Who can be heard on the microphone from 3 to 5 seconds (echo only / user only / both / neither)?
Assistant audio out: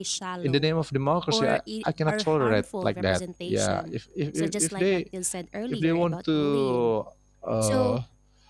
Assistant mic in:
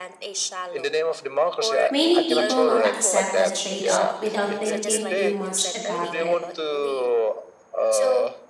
both